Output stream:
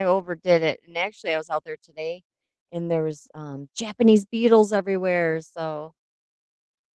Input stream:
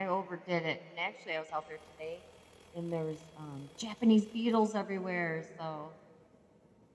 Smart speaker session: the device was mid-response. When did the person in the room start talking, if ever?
none

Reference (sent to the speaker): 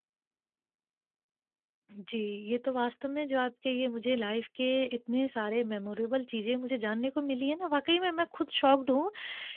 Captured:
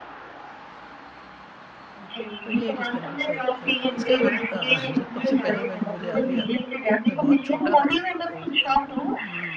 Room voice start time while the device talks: 2.4 s

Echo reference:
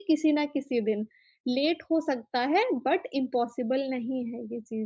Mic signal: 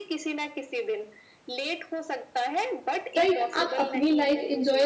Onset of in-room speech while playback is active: 3.2 s

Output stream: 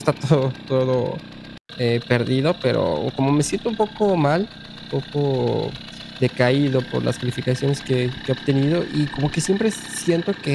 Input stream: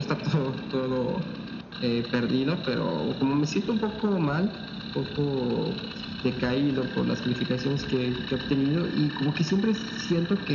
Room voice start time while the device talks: none

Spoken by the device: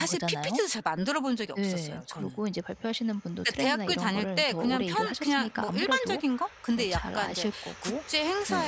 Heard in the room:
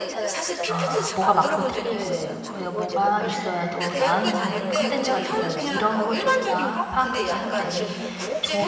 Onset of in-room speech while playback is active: 0.7 s

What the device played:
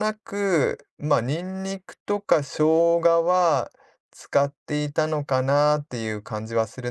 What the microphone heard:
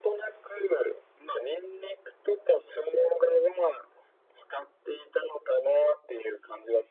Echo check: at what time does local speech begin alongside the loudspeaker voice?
none

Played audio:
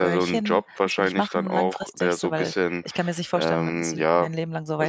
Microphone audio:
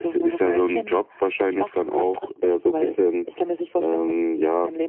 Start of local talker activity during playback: none

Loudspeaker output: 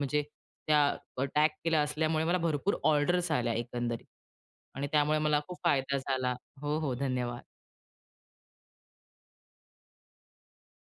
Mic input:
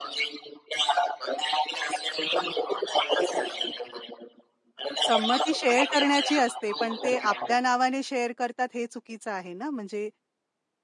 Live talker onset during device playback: 5.1 s

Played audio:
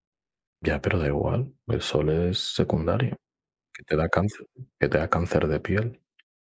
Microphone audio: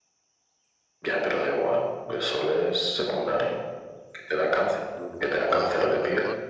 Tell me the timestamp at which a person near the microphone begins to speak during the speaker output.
5.0 s

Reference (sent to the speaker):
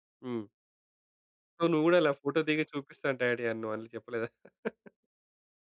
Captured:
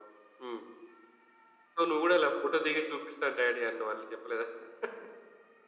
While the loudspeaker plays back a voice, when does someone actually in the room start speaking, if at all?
none

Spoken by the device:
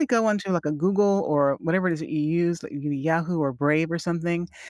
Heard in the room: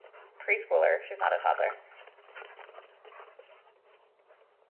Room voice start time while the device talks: 0.4 s

